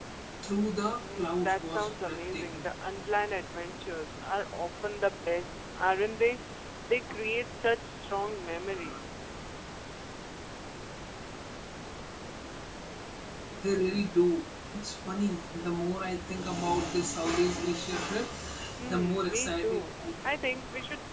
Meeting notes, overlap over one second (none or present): present